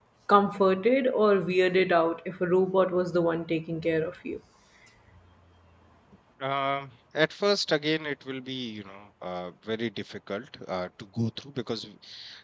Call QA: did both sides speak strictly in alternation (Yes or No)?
Yes